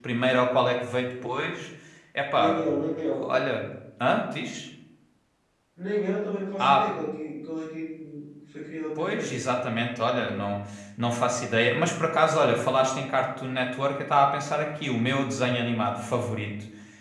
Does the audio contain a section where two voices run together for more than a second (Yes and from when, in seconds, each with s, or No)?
No